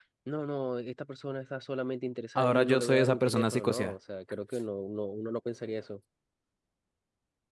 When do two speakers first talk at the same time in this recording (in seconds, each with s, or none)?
2.4 s